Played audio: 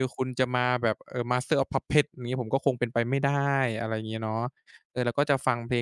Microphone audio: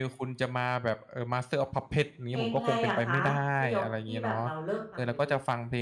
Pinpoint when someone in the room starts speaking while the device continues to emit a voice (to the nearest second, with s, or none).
2 s